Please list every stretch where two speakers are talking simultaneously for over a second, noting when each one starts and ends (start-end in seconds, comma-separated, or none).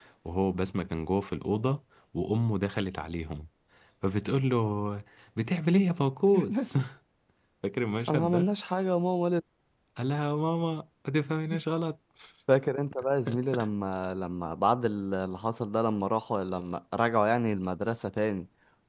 none